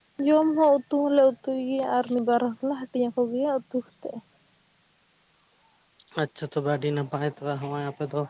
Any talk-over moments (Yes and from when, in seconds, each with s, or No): No